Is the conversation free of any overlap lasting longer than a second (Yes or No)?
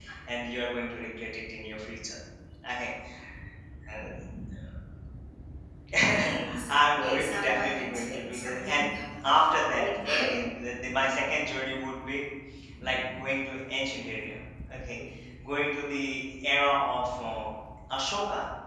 No